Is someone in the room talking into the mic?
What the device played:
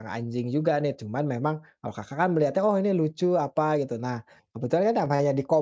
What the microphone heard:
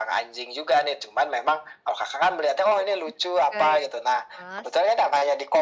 Yes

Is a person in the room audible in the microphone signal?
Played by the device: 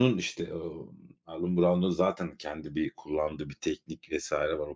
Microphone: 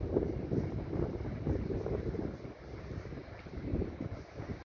No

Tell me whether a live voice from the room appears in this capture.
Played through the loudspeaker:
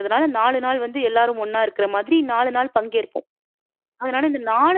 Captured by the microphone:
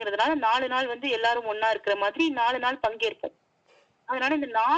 No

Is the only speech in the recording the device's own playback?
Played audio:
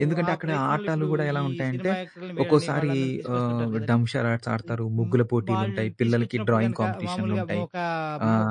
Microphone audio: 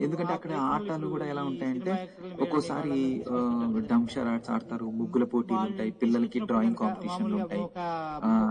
Yes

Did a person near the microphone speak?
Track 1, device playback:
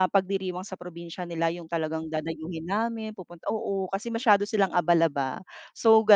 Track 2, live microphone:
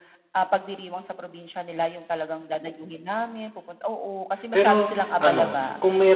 Yes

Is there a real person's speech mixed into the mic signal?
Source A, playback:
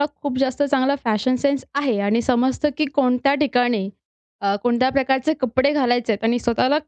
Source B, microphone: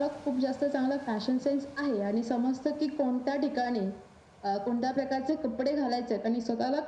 No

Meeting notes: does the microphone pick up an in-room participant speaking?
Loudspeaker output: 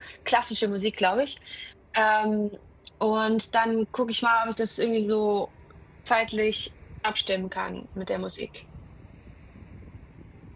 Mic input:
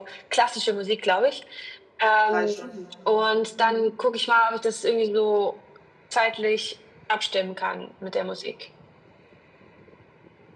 Yes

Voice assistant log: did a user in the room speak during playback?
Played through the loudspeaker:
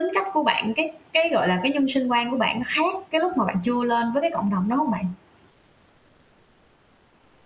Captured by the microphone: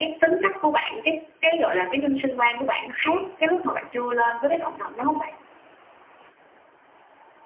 No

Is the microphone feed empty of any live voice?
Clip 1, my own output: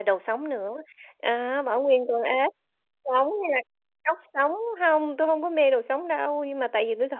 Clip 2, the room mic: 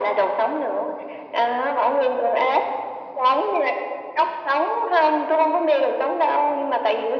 Yes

